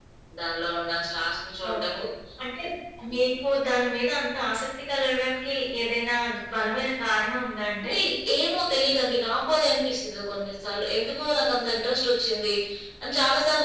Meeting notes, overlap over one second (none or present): none